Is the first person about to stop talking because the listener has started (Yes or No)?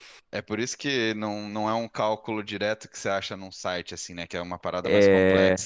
Yes